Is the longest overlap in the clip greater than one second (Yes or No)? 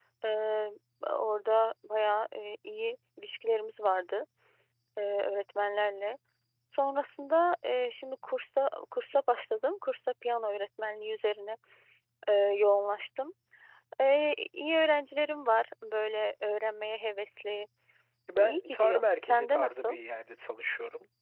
Yes